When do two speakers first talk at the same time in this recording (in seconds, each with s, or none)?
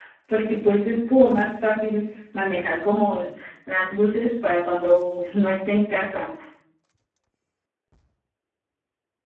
none